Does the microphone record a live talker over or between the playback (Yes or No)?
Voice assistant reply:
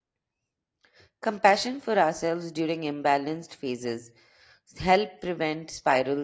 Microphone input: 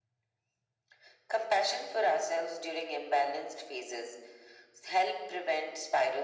No